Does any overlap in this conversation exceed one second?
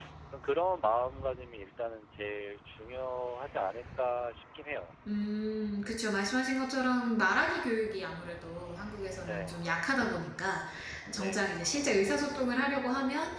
No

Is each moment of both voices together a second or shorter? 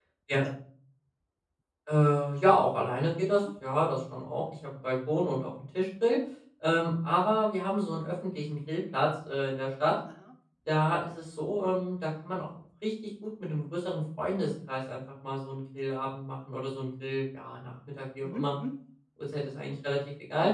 Yes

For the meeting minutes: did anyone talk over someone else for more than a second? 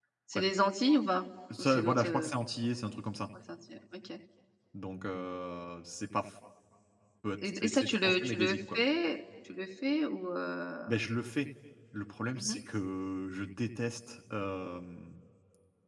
Yes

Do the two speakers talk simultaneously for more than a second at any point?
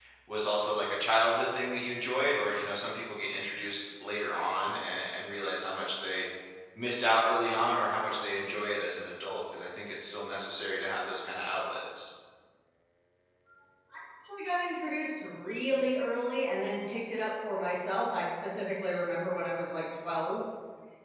No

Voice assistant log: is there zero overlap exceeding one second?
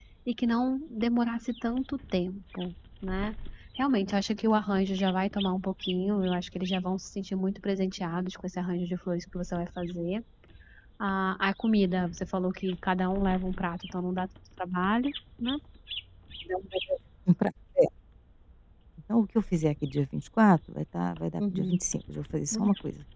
Yes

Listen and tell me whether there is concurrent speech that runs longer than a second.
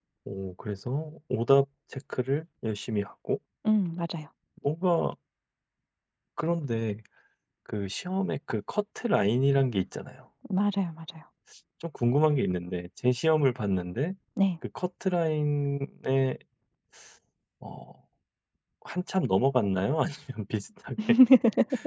No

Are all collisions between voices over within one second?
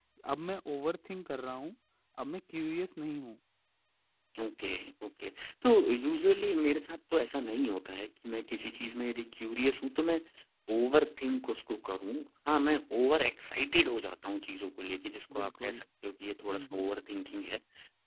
Yes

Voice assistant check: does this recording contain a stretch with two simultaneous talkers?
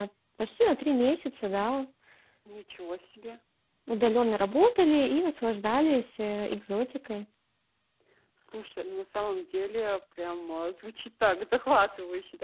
No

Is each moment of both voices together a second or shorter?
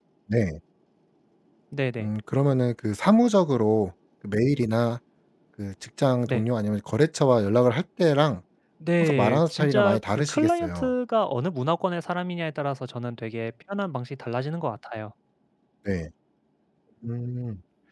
No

